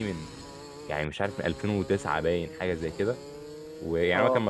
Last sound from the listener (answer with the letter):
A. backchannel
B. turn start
A